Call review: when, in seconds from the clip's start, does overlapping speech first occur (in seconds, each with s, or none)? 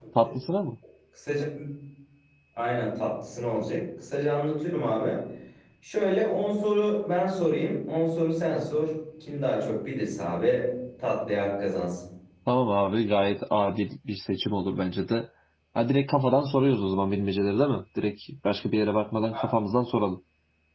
none